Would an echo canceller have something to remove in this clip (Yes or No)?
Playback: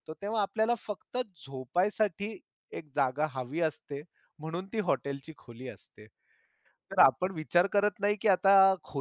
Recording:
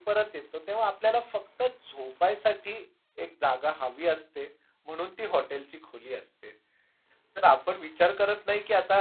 Yes